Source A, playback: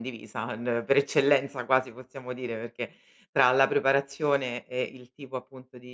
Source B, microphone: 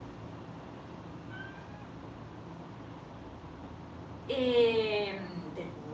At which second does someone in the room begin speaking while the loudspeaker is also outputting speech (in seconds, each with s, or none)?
4.2 s